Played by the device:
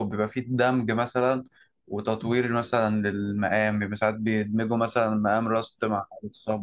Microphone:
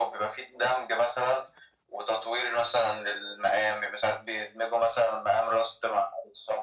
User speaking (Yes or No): No